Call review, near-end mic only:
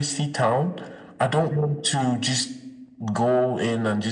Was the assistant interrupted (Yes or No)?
No